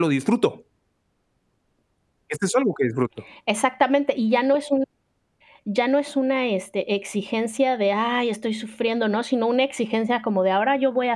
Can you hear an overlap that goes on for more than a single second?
No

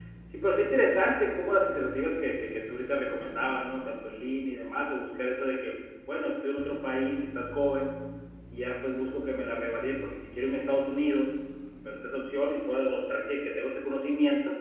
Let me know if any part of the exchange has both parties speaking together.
No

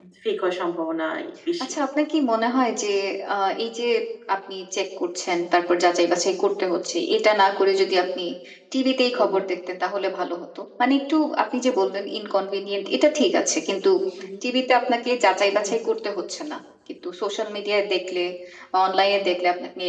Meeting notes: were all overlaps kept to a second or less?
Yes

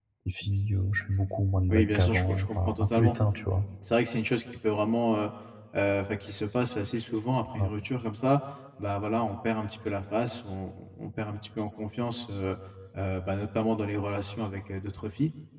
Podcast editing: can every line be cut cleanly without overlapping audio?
No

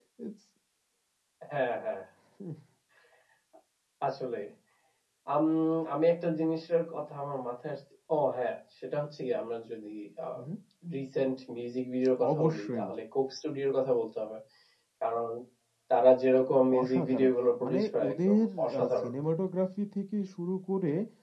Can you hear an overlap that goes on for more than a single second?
Yes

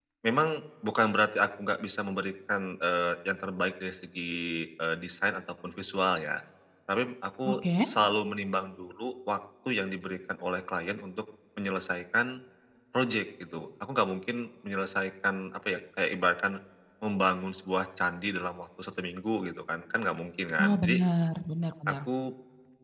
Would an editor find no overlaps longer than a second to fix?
Yes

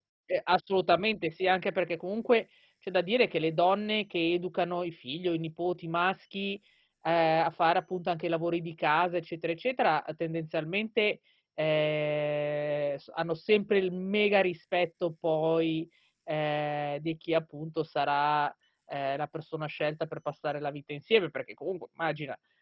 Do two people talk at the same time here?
No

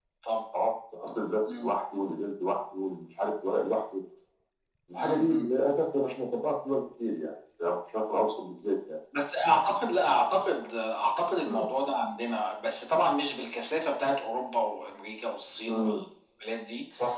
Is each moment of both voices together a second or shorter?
Yes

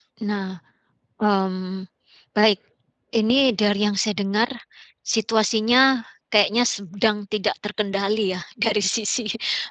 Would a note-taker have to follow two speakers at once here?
No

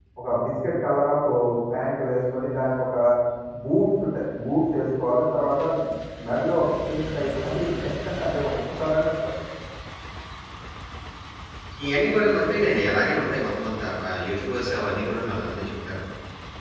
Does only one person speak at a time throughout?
Yes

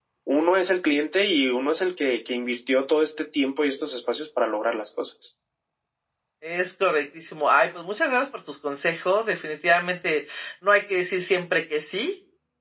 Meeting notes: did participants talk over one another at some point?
No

